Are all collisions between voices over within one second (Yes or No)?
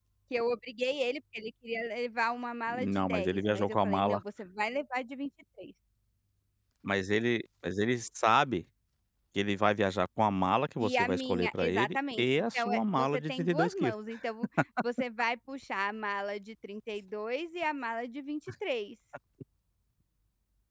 No